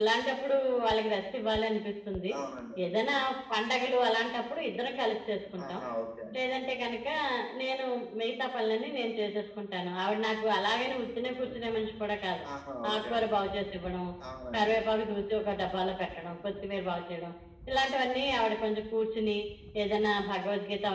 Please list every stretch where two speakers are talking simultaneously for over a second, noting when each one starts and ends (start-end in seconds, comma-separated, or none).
none